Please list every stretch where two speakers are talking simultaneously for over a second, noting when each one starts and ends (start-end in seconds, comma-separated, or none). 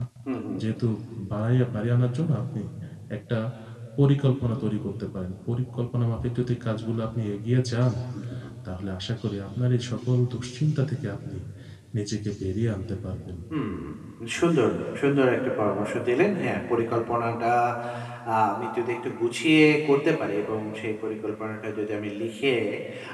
none